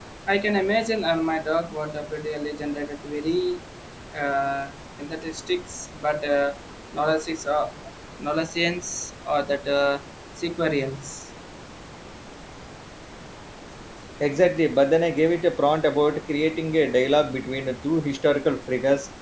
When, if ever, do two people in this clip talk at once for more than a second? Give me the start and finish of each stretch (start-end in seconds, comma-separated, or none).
none